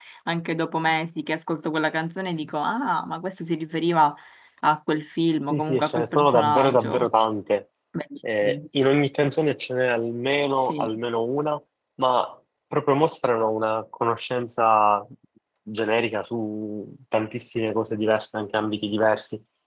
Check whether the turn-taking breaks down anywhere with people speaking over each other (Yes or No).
Yes